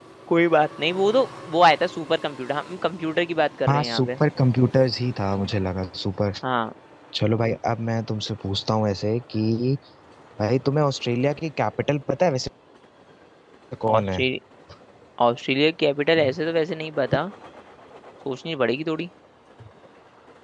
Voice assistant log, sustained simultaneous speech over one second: none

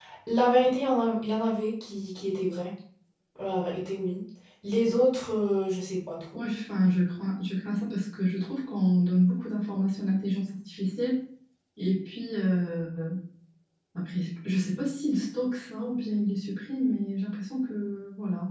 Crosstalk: none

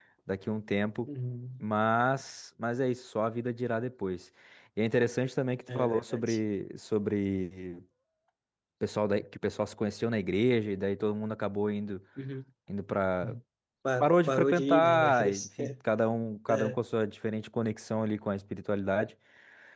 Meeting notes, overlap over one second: present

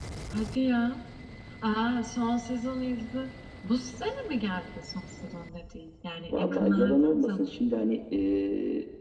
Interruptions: present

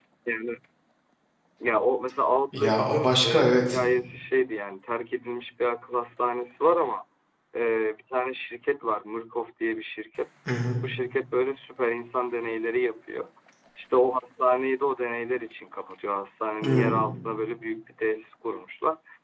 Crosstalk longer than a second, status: present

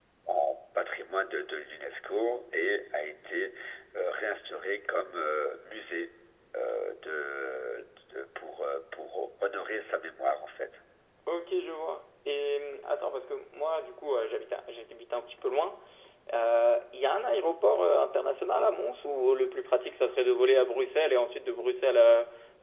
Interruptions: none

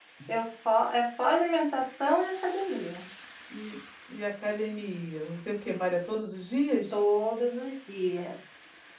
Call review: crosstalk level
none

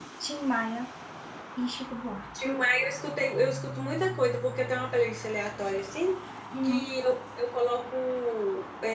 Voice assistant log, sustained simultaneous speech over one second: none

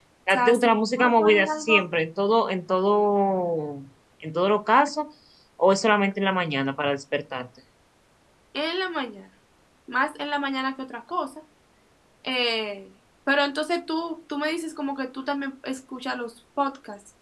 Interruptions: present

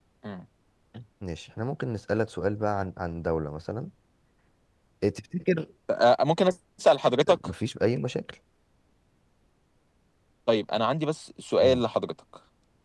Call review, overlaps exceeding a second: none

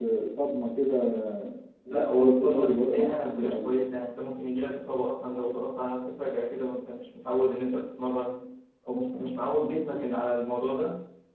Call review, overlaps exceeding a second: present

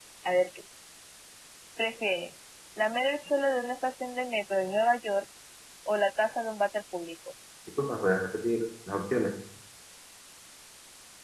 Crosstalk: none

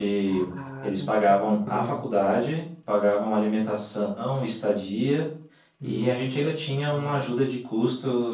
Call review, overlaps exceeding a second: present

